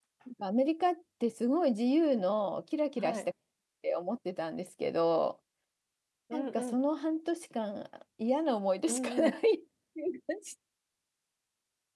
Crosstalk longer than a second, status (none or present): none